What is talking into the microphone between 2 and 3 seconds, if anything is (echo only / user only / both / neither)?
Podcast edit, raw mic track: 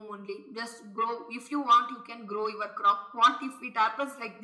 echo only